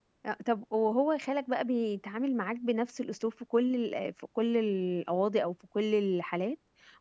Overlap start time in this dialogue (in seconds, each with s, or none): none